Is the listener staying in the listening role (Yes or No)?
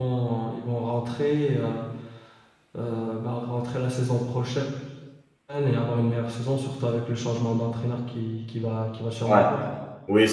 No